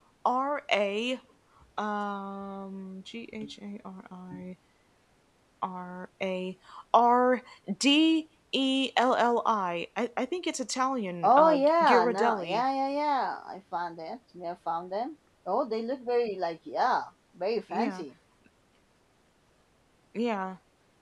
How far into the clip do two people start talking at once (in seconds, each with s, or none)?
11.2 s